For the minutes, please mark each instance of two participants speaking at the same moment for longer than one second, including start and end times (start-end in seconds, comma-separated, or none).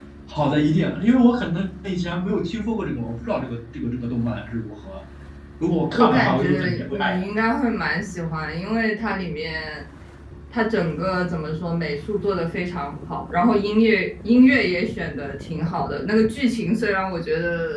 6.0-7.2